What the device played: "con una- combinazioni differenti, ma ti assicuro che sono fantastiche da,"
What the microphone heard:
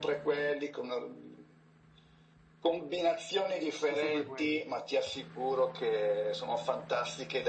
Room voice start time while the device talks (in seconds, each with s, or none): 3.8 s